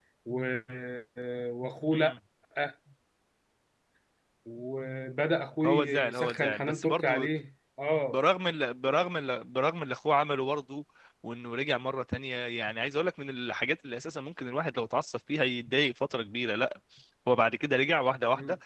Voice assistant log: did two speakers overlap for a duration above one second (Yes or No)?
Yes